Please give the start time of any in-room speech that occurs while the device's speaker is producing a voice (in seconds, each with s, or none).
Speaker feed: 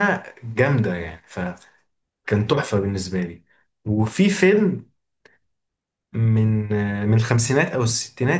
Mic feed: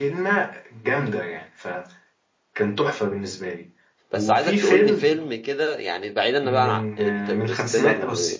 4.1 s